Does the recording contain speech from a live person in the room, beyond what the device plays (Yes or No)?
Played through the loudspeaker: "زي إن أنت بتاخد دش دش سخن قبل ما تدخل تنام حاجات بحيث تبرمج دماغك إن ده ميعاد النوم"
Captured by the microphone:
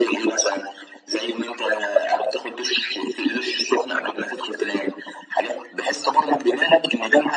No